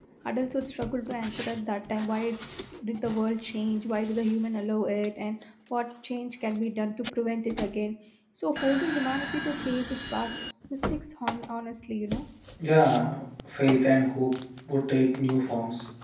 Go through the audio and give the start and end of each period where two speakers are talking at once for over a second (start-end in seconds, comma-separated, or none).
none